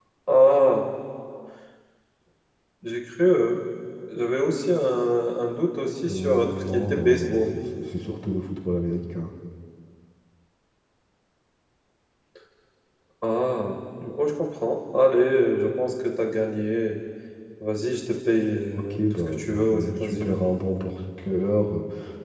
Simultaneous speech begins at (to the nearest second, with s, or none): 6 s